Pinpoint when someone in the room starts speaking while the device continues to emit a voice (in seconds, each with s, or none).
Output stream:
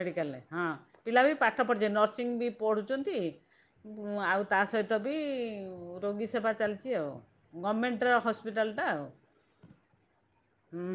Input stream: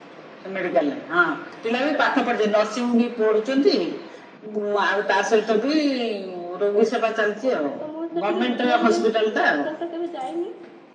7.8 s